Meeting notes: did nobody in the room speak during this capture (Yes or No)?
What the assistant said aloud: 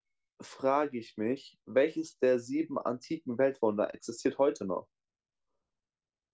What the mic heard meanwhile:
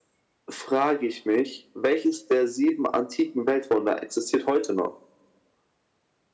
Yes